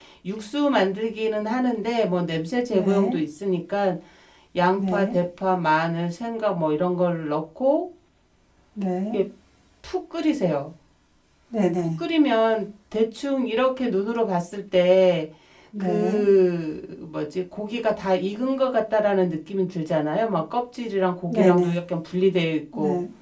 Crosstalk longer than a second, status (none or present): none